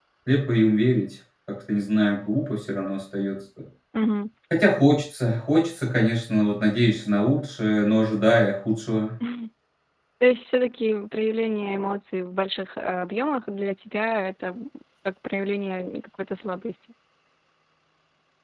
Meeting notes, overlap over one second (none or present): none